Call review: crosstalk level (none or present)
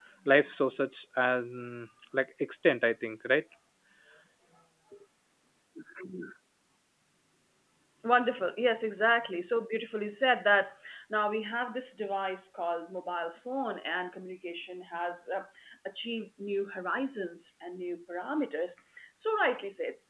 none